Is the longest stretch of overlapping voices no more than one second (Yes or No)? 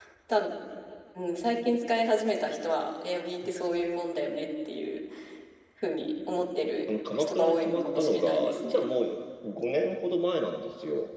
No